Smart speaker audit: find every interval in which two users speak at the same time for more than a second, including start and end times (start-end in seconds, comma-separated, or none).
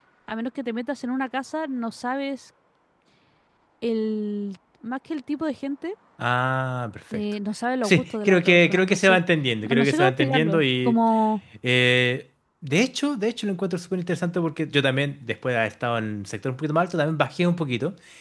7.8-9.2, 9.6-11.0